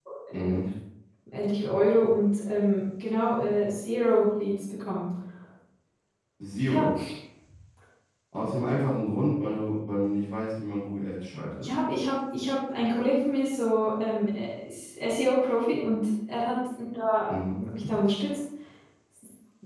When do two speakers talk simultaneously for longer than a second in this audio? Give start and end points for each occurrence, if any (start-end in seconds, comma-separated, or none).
none